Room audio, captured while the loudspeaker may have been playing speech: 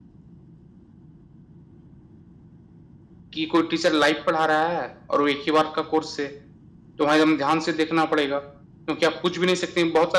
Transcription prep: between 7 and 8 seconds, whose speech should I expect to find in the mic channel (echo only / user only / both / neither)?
user only